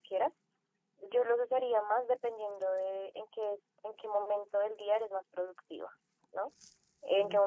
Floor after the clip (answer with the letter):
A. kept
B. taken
A